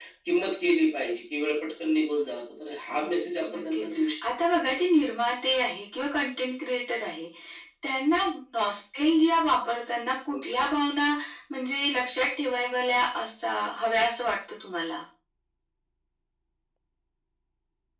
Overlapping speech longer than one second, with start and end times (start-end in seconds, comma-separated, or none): none